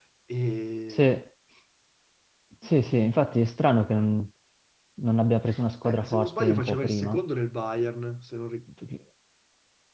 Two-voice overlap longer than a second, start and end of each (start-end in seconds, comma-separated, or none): 5.8-7.2